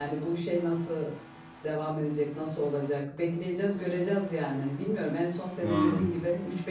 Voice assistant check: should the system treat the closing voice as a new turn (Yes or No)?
No